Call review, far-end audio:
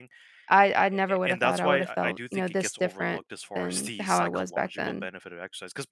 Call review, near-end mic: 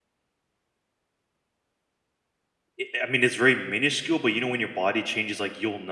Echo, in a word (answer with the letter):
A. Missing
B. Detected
A